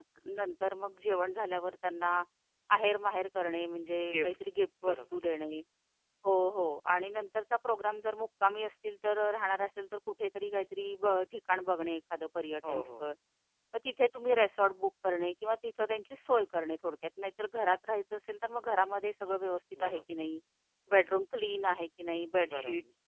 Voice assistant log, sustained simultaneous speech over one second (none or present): none